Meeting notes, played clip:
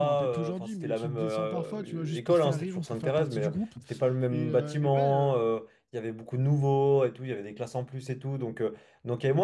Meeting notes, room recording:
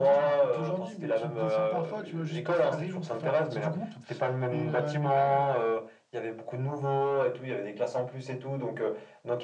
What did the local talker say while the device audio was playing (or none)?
none